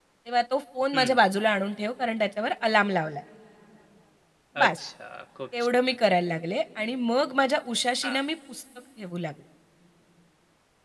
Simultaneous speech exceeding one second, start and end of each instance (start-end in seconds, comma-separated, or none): none